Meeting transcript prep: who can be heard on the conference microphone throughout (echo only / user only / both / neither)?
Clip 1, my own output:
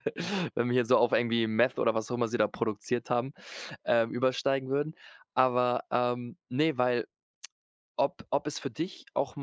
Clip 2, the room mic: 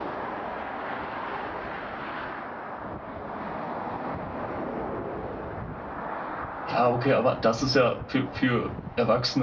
user only